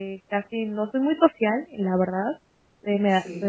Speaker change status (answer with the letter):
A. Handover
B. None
B